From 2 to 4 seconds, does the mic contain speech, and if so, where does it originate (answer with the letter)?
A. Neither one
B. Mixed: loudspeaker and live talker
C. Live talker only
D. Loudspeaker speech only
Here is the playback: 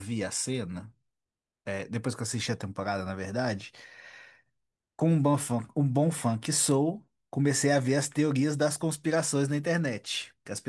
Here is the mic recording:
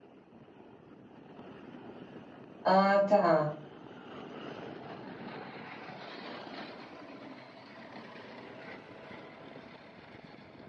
C